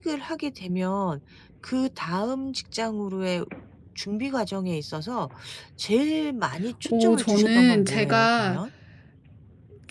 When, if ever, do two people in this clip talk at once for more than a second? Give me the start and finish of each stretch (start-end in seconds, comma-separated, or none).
6.8-8.6